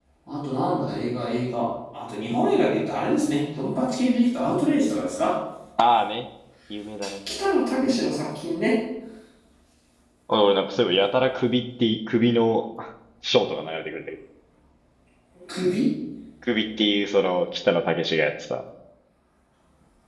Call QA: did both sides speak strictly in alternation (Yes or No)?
Yes